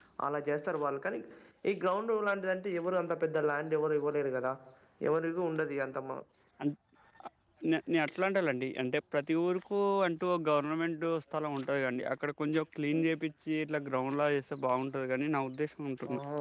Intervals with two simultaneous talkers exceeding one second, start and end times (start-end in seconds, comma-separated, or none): none